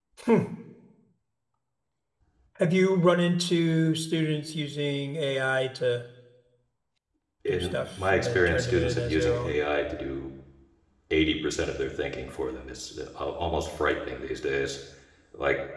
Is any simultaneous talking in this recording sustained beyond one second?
Yes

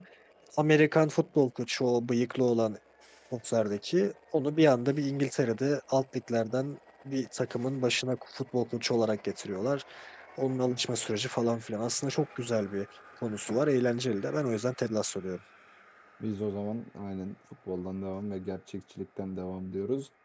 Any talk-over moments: No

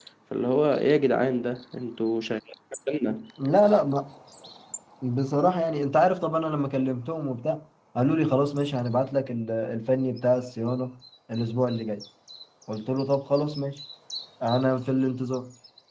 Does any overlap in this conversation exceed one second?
No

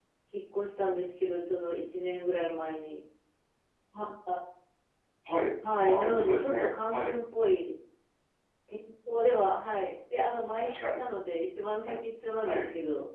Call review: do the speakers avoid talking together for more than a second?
No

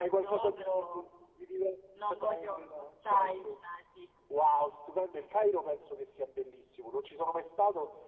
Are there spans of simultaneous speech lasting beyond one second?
Yes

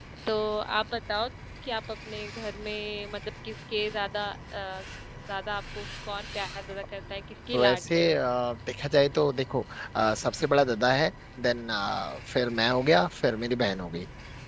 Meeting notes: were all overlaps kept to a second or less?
Yes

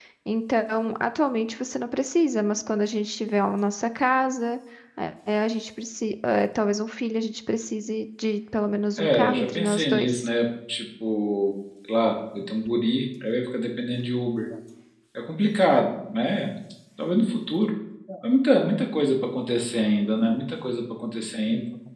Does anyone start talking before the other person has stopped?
Yes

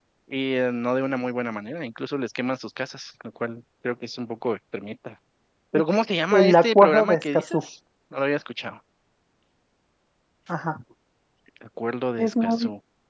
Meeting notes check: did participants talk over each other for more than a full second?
Yes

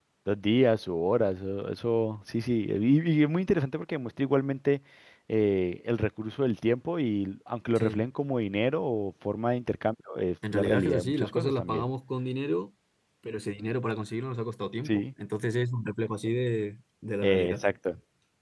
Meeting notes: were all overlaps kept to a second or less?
No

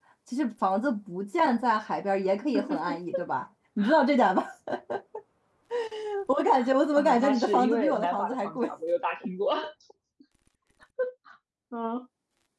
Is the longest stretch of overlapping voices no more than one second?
No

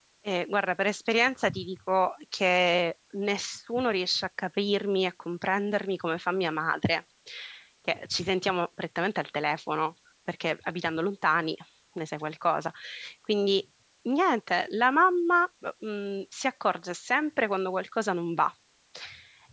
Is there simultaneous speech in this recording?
No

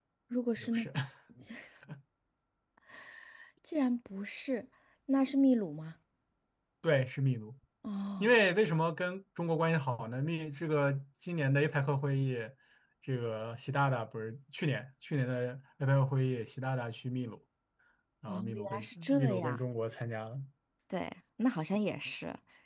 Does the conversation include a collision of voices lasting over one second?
Yes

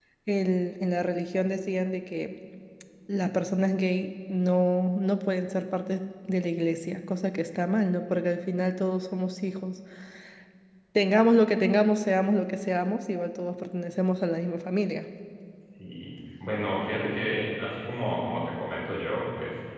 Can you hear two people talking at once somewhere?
No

